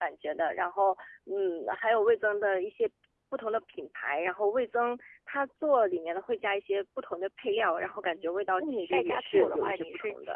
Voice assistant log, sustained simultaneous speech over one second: present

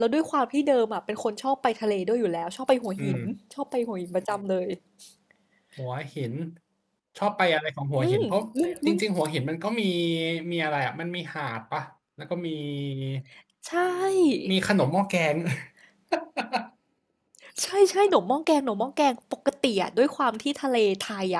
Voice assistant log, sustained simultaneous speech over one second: none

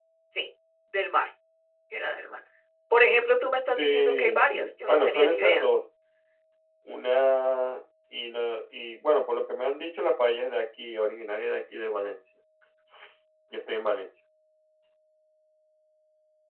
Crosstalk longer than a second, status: present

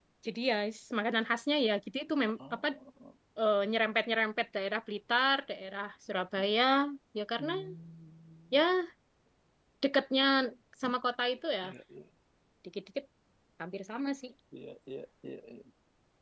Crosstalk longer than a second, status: none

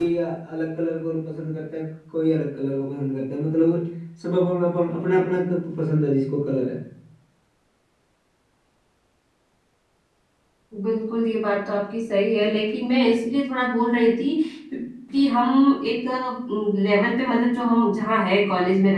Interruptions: none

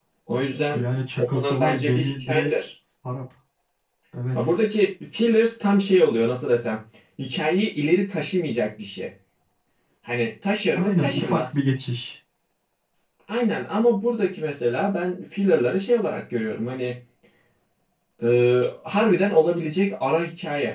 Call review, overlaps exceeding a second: present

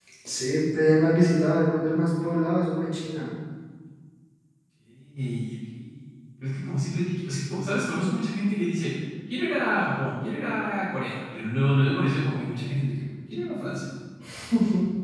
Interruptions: none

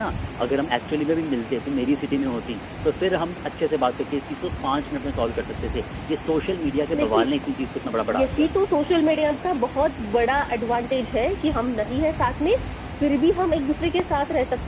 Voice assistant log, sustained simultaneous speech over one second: none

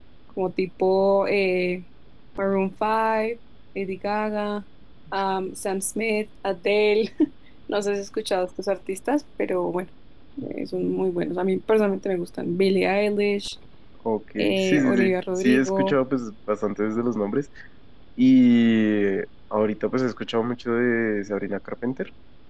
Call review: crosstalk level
present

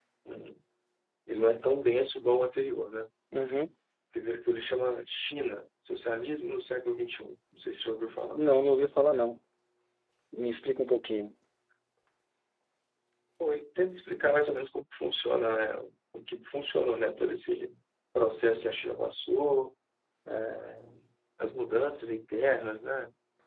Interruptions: none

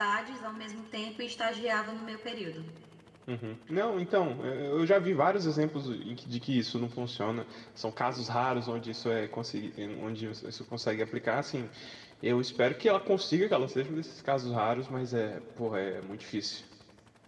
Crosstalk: none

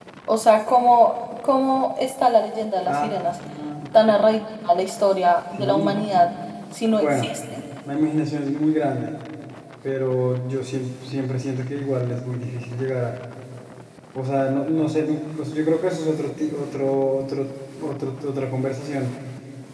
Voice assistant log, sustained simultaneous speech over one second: none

